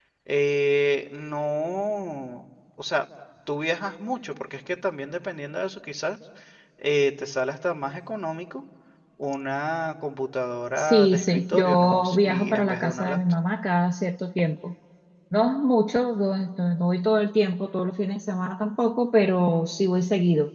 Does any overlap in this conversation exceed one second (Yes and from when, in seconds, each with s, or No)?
Yes, from 10.8 s